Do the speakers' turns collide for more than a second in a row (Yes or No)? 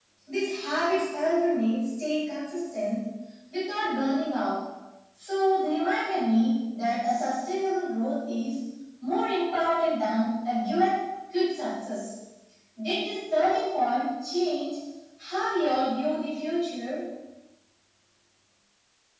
No